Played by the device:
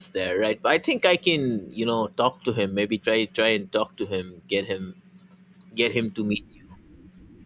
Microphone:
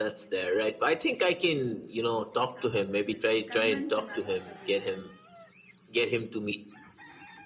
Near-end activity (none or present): present